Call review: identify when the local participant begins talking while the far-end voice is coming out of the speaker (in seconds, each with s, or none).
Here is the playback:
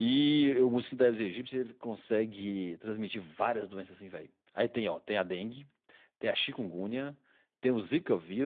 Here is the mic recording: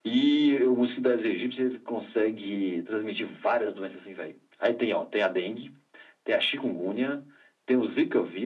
none